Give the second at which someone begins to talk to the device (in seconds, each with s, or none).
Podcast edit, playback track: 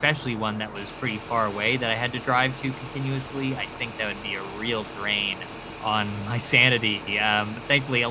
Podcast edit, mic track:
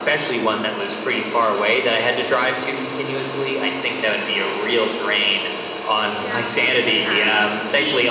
6.2 s